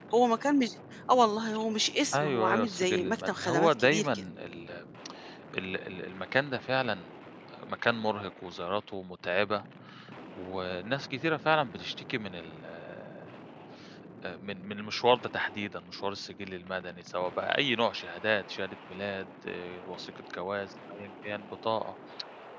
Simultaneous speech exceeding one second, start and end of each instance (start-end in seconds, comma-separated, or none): 2.1-4.2